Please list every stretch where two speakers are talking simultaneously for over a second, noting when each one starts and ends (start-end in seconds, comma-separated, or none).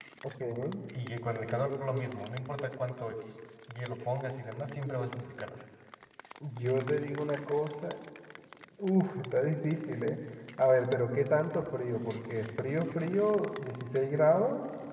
none